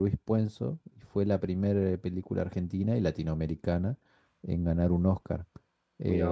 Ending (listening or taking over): listening